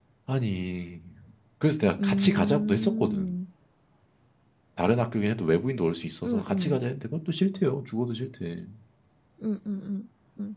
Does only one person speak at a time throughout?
No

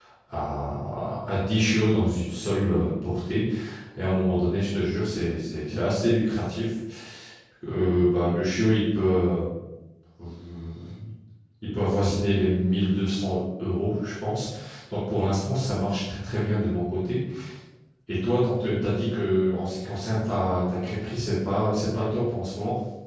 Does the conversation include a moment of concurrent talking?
No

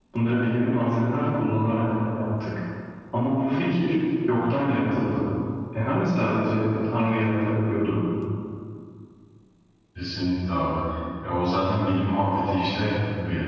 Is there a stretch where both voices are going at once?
No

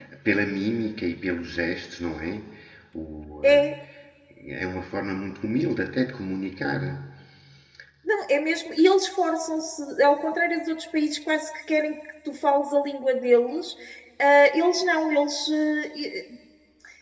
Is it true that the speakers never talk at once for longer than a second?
Yes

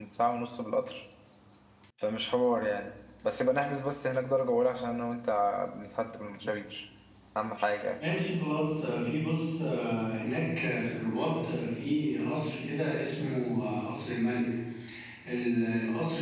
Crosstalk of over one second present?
No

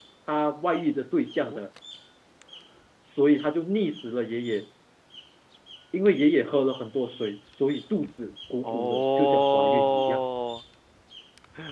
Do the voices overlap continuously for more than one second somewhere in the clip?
Yes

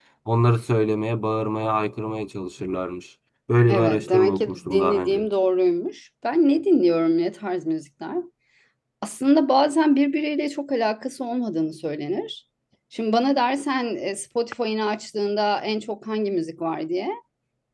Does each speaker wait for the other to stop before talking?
No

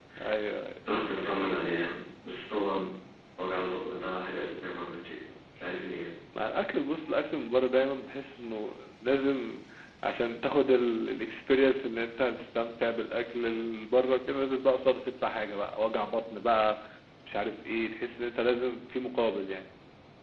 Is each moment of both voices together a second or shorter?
Yes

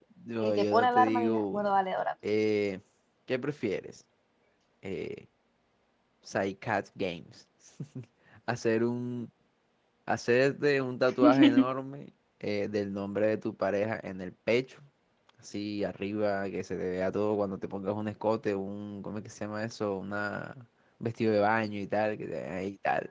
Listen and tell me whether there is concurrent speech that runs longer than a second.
Yes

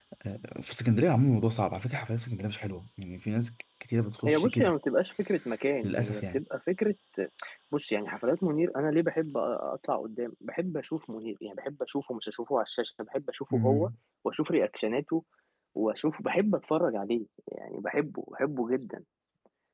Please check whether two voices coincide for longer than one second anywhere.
No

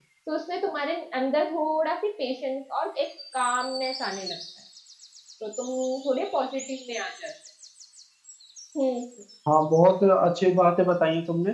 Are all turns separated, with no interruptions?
Yes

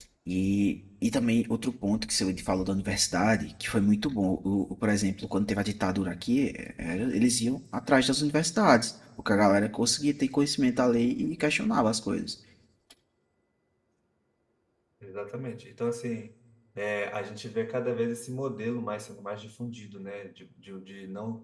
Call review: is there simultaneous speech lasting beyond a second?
No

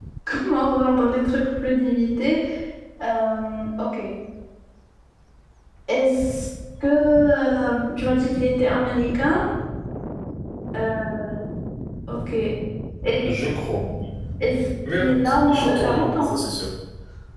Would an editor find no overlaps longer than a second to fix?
No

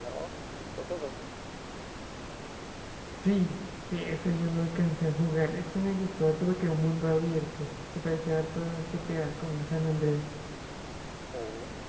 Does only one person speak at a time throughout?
Yes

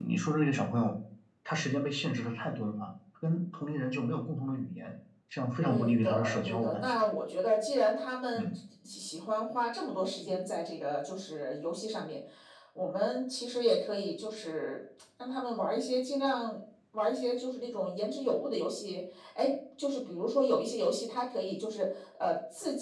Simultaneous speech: Yes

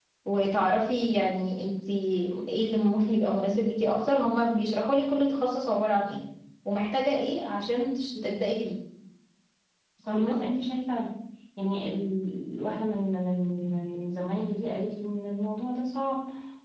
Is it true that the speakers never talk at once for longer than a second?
Yes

